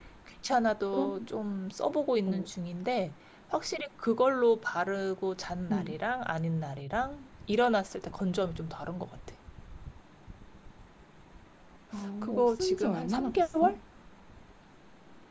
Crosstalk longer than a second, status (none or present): present